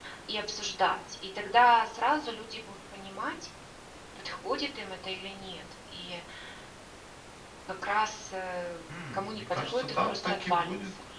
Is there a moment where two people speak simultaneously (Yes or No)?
Yes